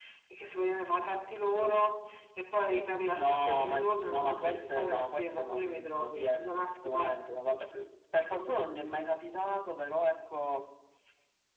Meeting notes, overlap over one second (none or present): present